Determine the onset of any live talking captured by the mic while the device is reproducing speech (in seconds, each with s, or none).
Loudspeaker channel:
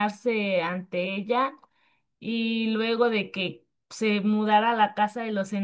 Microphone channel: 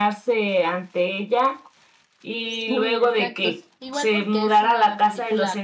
2.4 s